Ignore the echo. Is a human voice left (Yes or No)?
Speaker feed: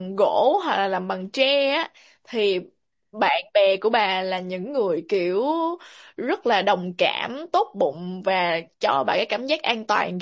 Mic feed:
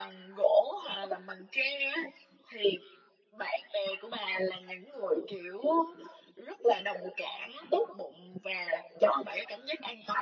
No